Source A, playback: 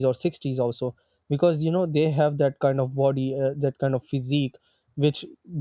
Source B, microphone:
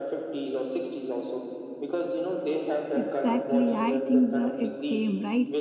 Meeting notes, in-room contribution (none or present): present